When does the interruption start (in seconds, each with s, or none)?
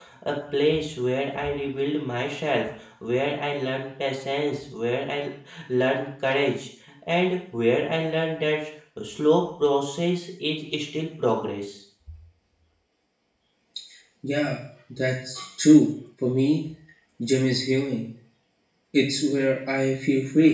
none